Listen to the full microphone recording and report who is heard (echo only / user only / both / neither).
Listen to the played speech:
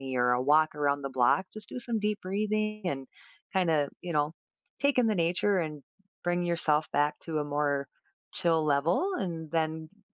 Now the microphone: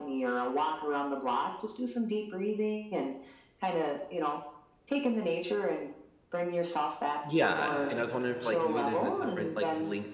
both